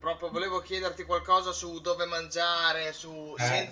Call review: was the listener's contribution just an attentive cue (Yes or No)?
Yes